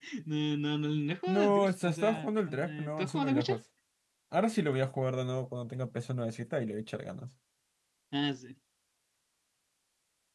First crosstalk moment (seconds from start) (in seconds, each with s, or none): 1.3 s